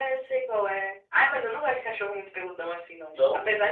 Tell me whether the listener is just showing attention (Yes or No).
Yes